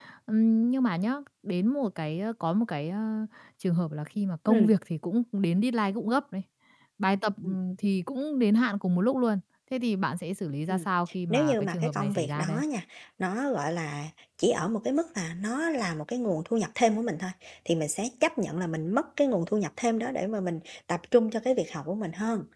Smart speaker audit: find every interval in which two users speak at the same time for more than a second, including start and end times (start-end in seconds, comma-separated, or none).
11.3-12.6